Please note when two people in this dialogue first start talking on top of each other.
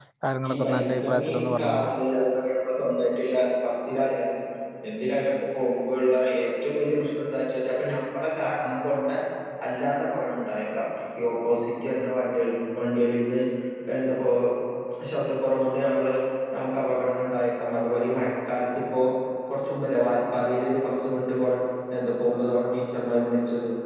0.5 s

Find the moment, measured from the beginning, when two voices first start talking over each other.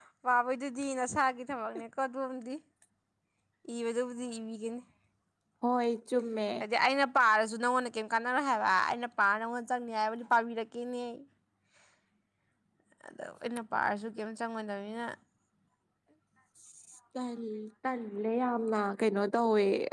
none

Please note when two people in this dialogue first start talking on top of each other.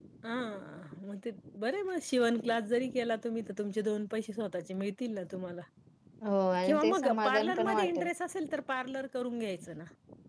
6.6 s

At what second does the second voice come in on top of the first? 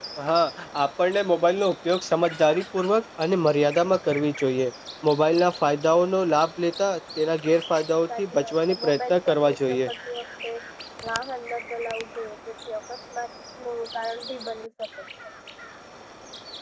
8.1 s

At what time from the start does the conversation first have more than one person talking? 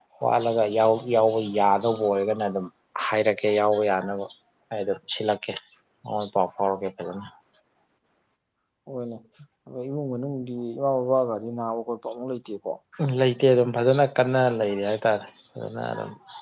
none

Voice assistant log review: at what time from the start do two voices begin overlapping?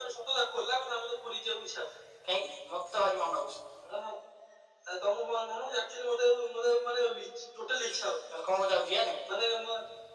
none

